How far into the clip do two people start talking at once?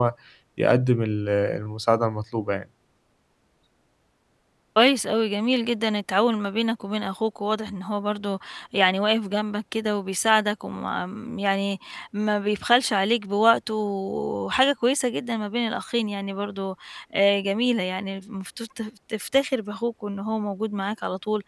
none

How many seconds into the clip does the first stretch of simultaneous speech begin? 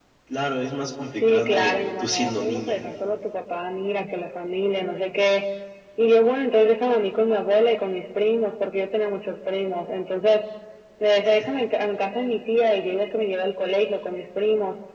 1.2 s

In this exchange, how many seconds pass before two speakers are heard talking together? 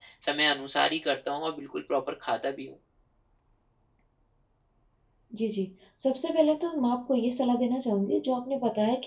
none

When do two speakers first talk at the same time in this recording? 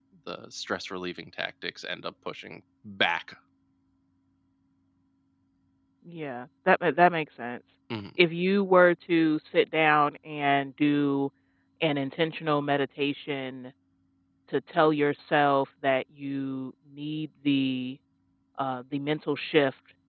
none

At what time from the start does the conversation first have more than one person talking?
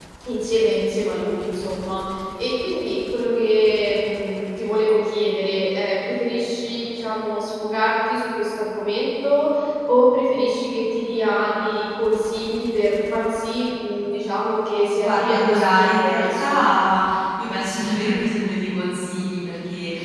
14.9 s

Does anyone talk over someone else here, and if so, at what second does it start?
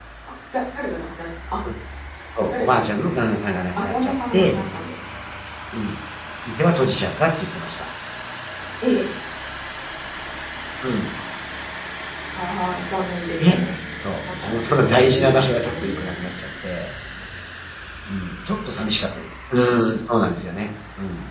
2.6 s

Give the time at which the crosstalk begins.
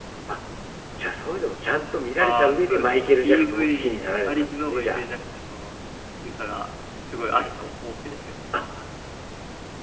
2.2 s

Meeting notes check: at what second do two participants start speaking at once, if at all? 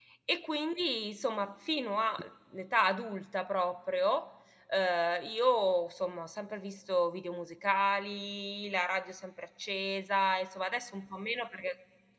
none

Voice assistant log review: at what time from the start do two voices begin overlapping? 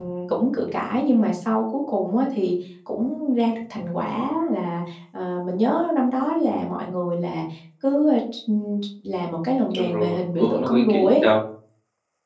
9.7 s

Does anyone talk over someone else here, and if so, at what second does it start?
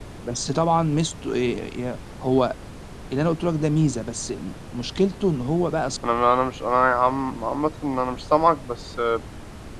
none

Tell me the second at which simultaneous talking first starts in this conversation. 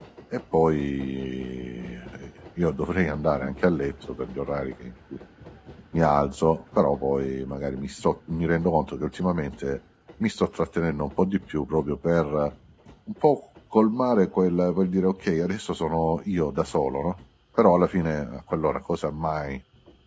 none

